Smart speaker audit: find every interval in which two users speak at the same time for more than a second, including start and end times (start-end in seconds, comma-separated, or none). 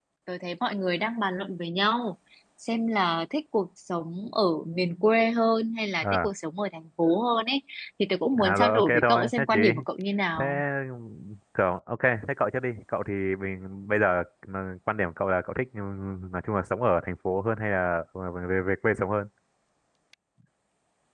8.4-9.6